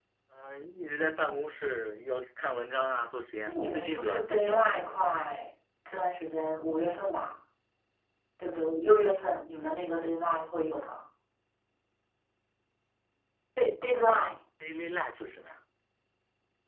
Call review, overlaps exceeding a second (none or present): present